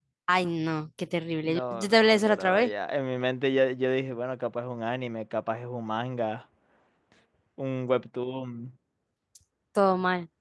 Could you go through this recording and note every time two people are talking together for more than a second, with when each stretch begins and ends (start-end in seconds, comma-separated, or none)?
1.4-2.7